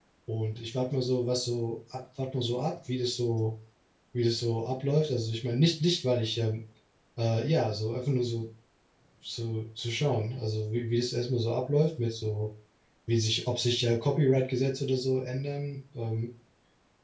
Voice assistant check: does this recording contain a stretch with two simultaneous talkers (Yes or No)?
No